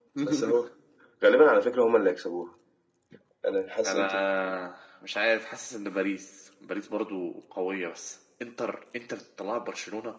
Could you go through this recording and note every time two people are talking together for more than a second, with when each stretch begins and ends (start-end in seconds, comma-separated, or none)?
none